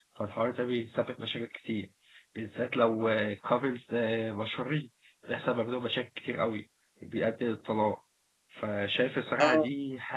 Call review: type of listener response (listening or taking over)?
listening